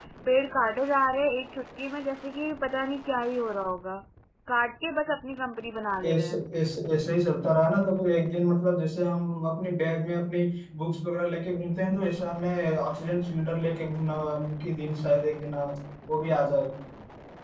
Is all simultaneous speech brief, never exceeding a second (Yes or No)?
Yes